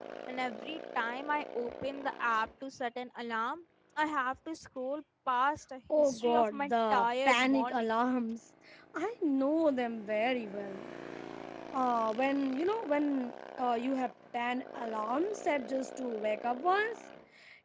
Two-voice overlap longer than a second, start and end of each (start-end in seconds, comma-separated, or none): 6.0-7.9